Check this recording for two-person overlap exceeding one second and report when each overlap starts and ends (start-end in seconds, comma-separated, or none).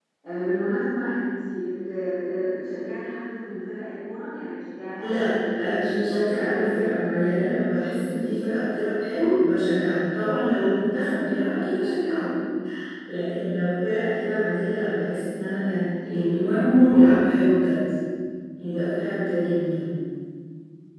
5.0-7.4